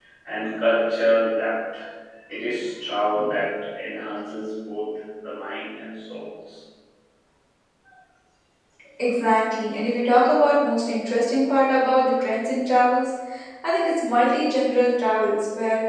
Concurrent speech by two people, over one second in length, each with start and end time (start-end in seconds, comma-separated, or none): none